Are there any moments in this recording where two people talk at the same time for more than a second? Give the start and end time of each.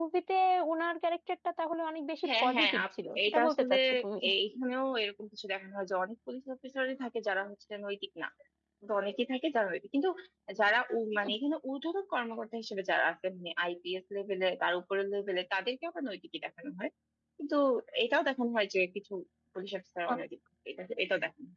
2.4-3.8

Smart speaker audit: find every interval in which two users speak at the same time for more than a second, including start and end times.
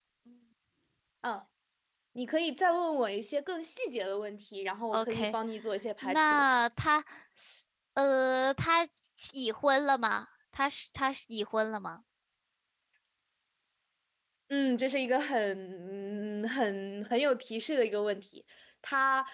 none

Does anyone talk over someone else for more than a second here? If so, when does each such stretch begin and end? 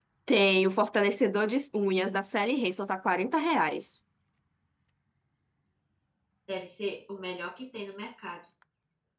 none

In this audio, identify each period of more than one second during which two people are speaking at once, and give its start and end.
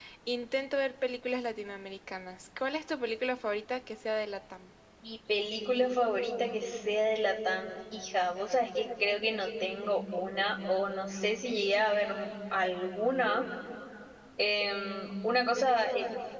none

